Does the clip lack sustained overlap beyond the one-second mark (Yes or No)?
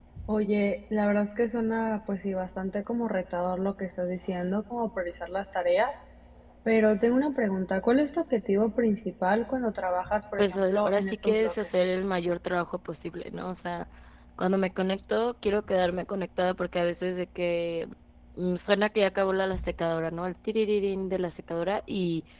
No